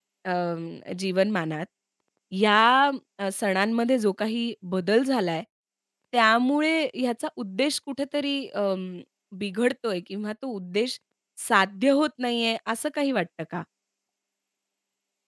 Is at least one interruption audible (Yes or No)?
No